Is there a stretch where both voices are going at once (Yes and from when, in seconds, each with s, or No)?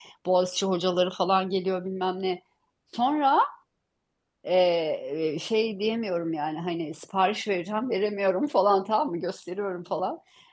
No